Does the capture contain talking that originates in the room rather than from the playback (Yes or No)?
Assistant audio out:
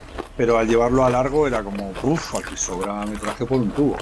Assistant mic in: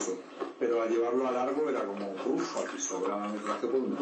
No